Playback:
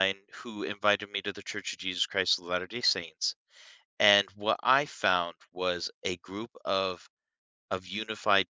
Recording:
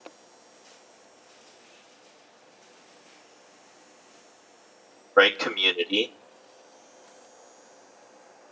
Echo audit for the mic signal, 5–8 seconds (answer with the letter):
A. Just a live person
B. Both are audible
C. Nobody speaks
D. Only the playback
A